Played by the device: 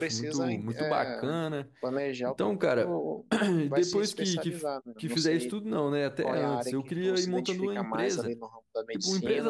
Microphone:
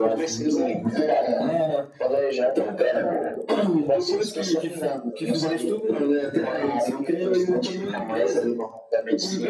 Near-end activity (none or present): none